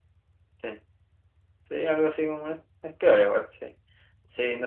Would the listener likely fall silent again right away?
No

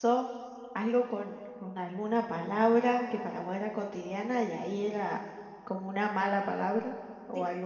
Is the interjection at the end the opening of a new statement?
Yes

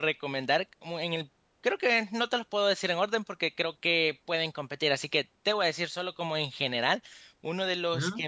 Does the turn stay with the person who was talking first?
Yes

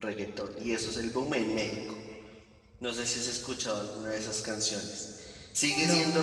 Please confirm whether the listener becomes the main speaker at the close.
No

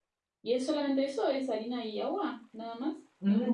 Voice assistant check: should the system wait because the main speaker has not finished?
No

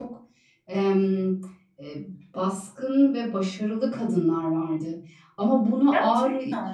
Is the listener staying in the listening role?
Yes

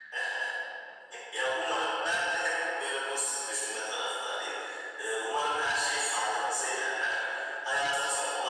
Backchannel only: Yes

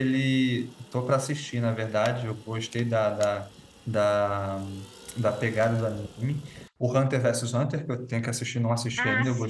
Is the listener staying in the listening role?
Yes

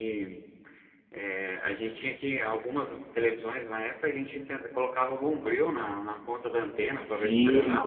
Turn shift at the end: Yes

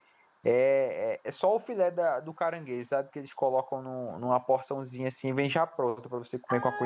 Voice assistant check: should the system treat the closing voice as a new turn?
Yes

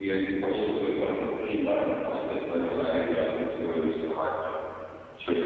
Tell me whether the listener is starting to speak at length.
Yes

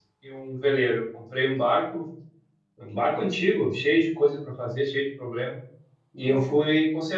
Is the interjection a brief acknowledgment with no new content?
Yes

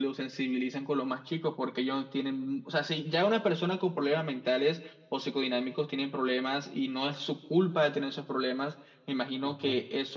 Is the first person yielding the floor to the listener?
No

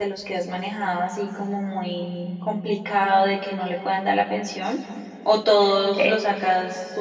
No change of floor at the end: Yes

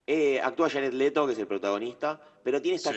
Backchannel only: Yes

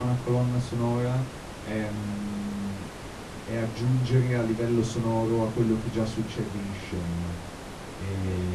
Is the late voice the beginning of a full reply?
Yes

